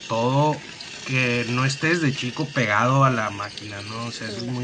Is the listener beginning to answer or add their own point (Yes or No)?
No